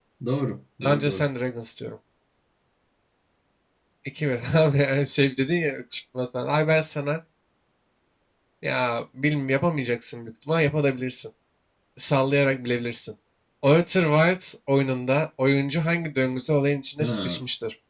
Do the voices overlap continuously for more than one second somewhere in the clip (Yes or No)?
No